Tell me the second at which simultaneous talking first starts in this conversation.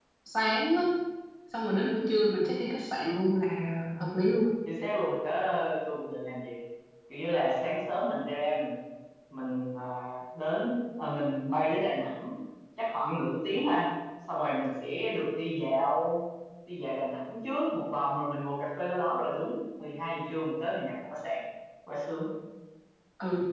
none

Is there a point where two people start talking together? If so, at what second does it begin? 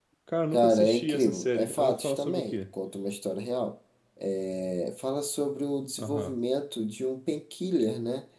0.5 s

